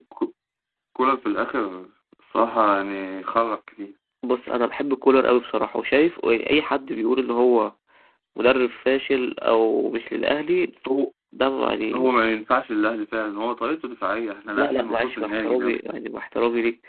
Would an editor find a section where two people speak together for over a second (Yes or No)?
Yes